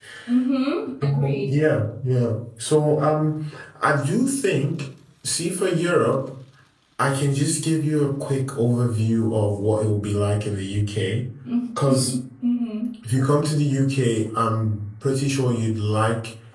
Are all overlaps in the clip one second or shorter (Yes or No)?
Yes